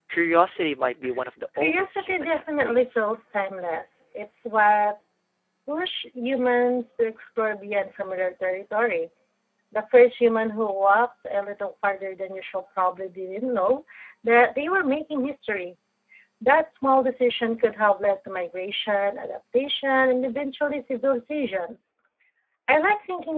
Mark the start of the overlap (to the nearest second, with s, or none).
2 s